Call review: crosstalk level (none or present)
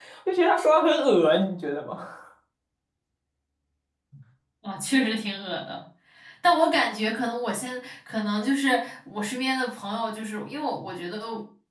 none